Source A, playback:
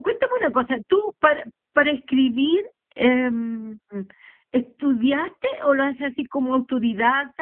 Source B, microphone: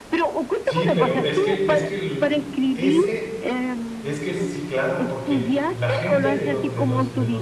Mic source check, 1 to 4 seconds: both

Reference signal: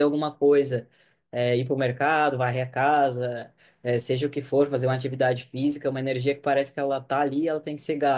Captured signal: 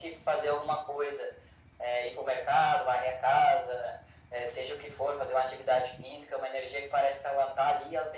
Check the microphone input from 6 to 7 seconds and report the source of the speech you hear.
echo only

